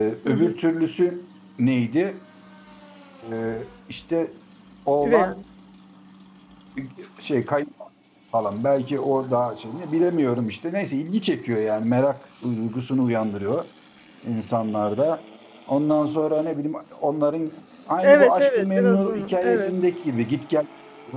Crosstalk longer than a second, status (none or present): present